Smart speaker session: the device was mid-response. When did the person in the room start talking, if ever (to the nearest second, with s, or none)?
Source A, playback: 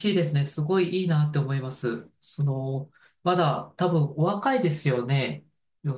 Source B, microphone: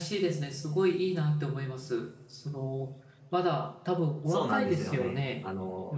4 s